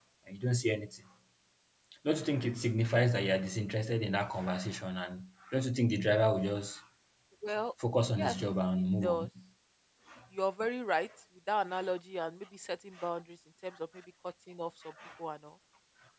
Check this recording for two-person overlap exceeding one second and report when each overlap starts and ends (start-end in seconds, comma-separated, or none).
none